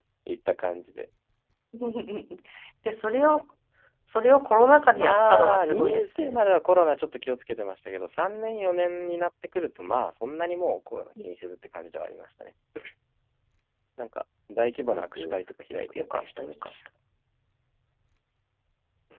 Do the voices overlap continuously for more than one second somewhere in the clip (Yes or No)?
Yes